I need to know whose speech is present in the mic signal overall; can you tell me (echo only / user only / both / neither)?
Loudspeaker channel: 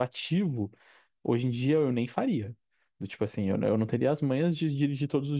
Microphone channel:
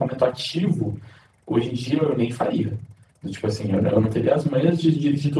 echo only